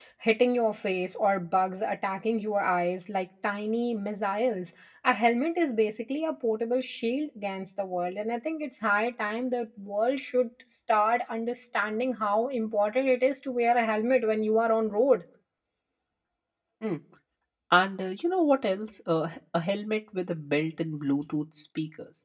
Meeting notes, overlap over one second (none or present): none